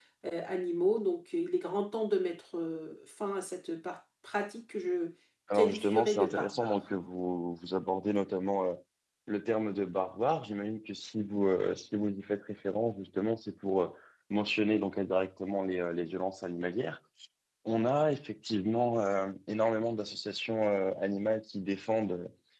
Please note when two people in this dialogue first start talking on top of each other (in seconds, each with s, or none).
5.5 s